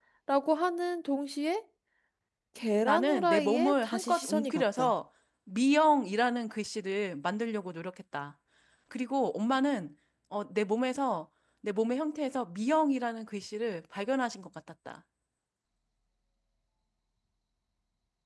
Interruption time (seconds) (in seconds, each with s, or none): 2.8 s